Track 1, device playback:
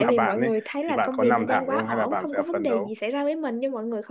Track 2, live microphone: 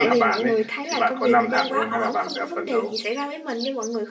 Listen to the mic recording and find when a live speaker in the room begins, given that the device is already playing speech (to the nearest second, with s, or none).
none